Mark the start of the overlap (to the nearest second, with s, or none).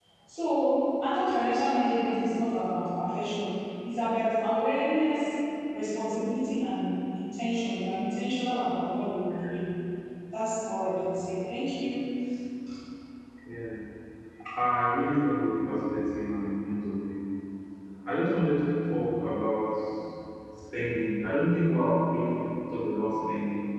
none